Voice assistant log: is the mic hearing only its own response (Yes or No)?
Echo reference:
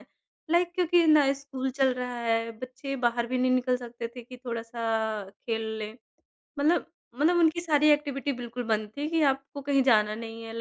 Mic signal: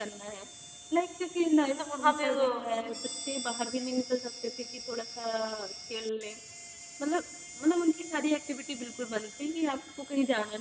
No